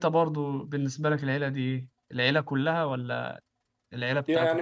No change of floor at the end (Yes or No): No